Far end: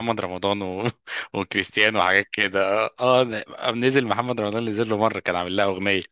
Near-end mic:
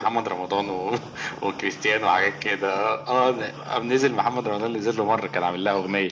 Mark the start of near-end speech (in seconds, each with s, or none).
none